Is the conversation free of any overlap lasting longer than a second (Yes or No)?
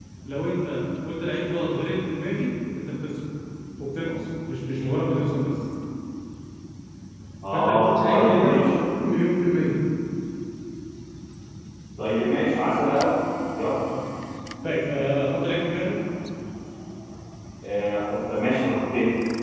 No